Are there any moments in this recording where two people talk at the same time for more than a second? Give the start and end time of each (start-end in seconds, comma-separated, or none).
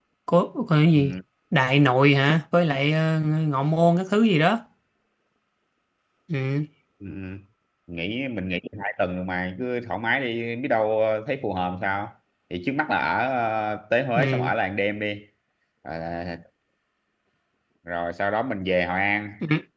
none